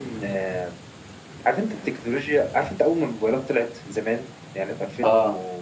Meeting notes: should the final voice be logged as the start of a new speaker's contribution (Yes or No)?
No